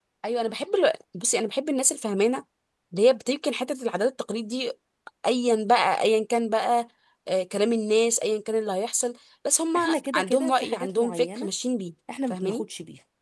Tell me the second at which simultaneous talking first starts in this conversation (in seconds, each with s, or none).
9.8 s